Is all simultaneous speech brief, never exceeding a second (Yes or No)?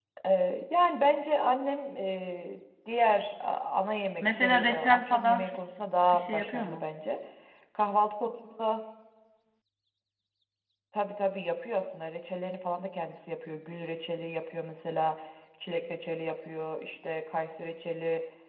No